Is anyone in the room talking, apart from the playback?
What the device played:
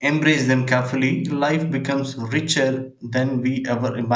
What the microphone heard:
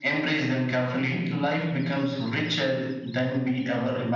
No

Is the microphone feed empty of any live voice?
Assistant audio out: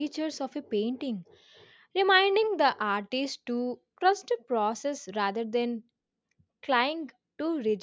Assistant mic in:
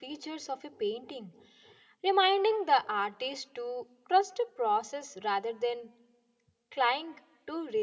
Yes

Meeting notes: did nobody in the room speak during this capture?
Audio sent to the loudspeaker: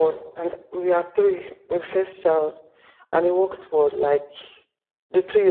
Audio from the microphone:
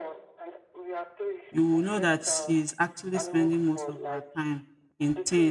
No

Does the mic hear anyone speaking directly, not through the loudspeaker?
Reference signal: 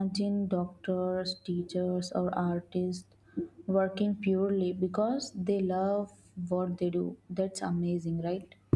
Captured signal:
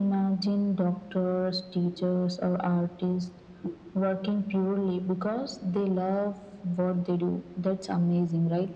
No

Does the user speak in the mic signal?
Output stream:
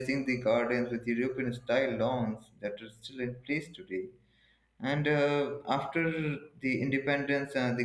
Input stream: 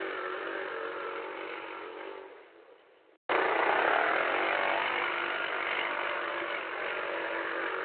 No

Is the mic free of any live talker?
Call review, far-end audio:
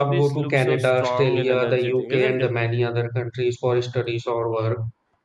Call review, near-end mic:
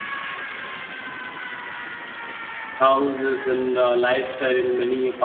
No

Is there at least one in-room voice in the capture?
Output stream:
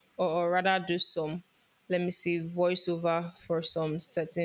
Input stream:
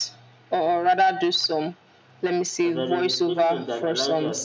Yes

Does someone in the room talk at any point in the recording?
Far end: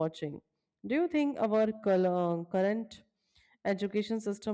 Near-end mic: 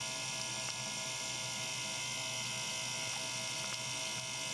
No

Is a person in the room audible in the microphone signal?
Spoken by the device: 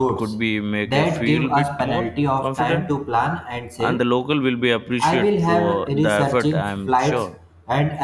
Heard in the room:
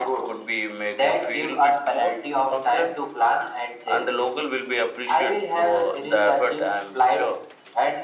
No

